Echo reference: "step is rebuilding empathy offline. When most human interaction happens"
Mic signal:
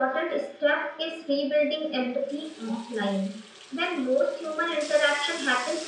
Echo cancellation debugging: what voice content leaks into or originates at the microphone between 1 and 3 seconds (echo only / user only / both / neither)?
echo only